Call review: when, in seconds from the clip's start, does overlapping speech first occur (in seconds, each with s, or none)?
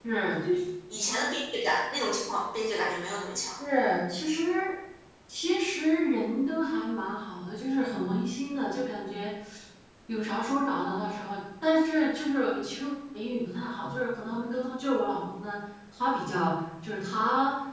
none